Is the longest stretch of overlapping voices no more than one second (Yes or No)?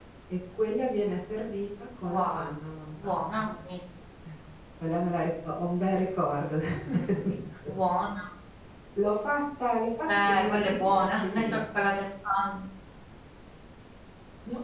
No